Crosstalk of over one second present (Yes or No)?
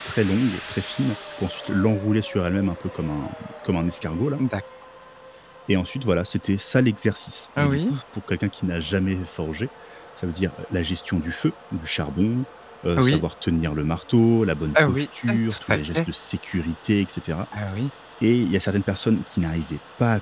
Yes